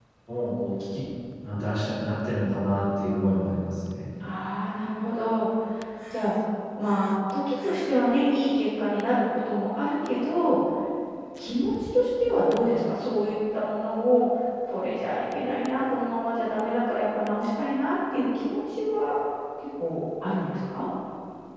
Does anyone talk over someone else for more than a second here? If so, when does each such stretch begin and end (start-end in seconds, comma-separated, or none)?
none